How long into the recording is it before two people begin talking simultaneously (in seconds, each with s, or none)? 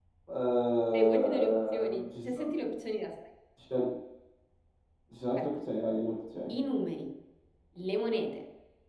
0.9 s